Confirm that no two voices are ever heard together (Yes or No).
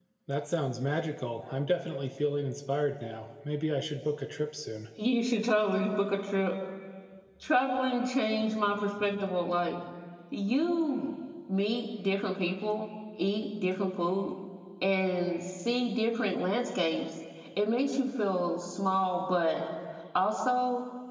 Yes